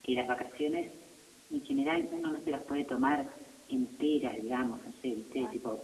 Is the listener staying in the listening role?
Yes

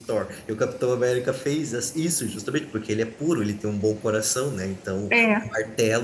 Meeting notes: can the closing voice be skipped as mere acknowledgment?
Yes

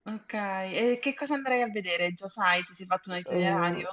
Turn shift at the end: Yes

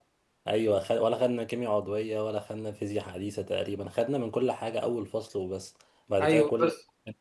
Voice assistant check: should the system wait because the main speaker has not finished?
No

